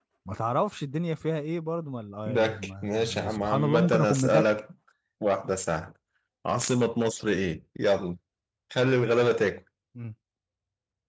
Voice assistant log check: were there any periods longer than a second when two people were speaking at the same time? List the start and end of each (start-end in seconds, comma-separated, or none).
2.3-4.4